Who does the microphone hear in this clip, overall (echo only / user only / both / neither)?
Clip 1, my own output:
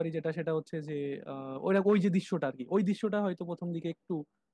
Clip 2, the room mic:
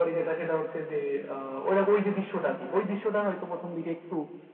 echo only